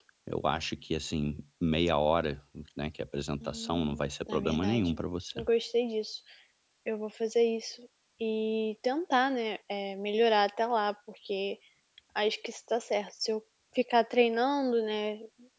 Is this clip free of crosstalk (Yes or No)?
No